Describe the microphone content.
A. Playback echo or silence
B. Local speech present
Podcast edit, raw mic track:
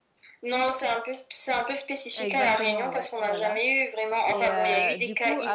B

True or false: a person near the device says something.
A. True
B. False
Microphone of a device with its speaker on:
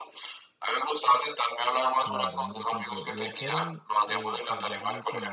A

